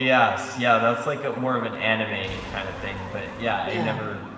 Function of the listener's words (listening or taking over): listening